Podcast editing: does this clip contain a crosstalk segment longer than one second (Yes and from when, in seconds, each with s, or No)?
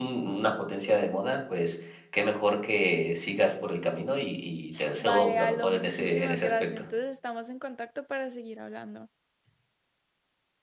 Yes, from 5.0 s